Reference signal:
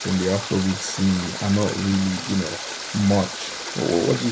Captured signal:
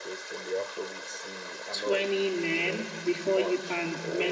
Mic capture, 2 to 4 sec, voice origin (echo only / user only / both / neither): both